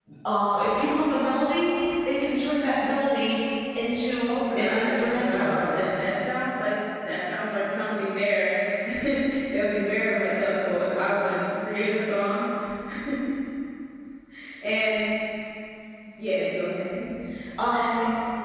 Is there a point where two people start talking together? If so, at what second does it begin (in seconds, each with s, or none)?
4.2 s